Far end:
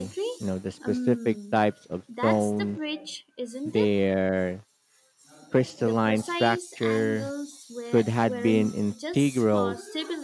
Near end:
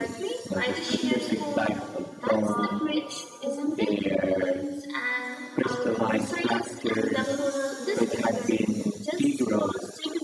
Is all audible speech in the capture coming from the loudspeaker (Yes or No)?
No